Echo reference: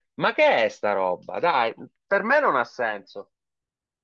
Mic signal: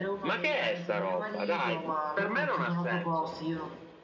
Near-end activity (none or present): present